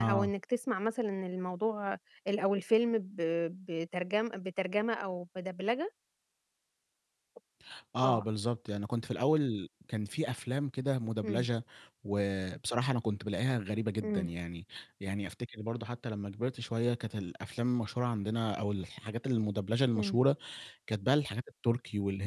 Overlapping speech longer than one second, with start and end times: none

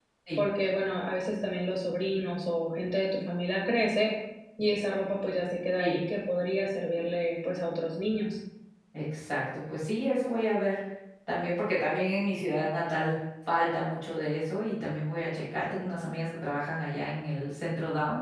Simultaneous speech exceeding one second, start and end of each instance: none

